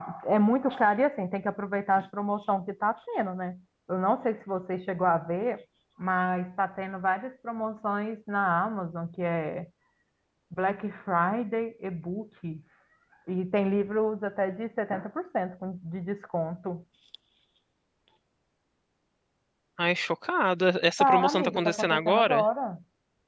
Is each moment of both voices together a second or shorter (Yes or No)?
No